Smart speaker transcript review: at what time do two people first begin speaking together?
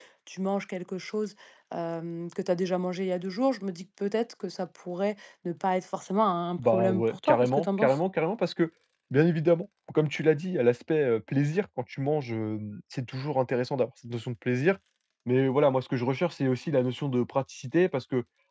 6.6 s

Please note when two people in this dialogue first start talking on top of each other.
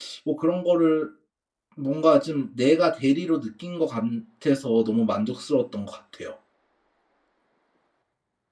none

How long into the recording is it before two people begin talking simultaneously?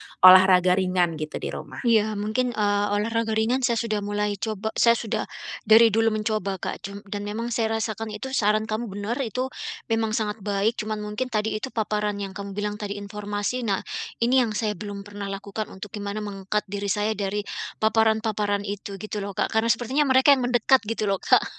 none

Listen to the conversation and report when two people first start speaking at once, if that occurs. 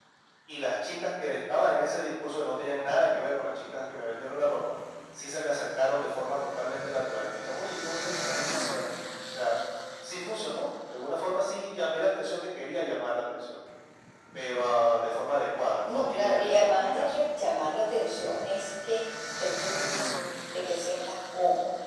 15.9 s

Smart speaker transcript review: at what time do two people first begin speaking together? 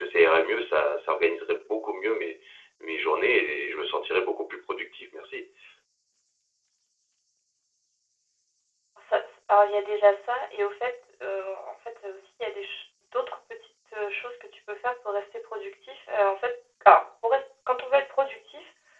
none

